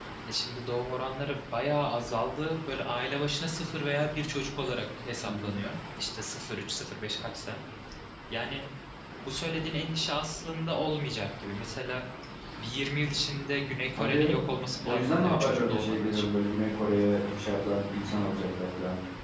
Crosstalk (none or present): present